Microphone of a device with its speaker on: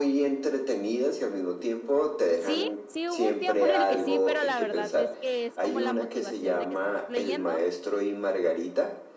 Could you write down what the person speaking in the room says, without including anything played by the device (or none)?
Sí, sí hubo un tiempo en el que sí, pero la verdad es que es como la motivación de que estás leyendo